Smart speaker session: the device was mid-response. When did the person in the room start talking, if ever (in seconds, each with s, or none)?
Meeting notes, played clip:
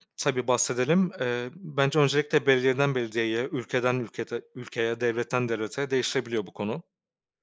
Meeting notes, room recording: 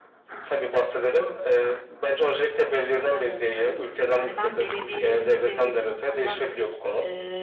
3.1 s